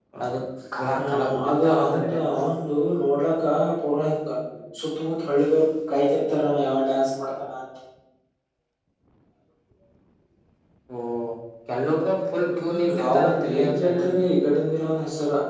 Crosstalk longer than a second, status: present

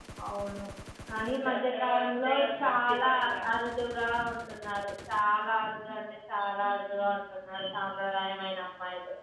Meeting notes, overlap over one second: present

